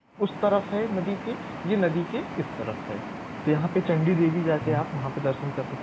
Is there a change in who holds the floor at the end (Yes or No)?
No